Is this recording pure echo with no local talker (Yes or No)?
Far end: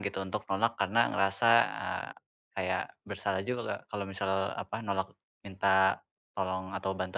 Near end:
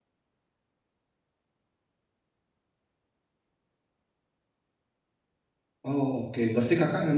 No